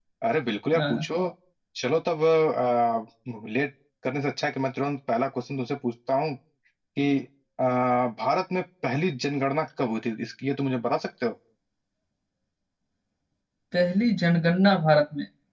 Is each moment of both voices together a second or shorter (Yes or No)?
Yes